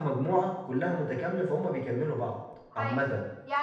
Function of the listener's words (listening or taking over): taking over